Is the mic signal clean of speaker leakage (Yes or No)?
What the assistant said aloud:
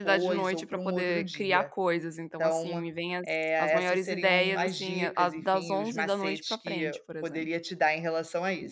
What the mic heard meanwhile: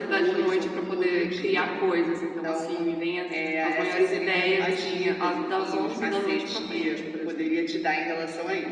No